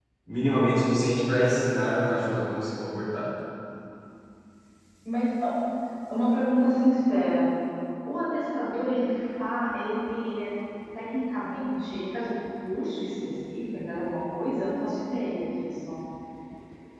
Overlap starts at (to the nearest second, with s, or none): none